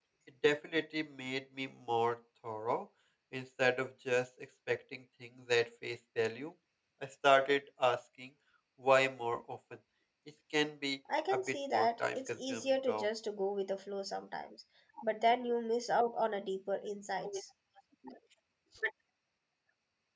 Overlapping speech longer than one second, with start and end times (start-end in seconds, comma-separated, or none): 11.3-13.1